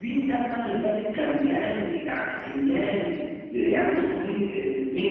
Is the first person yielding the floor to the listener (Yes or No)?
No